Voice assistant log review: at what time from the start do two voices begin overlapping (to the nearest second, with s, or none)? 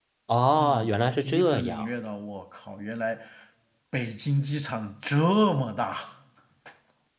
1 s